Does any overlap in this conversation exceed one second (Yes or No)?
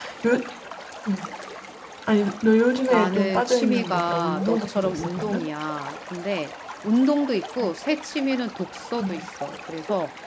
Yes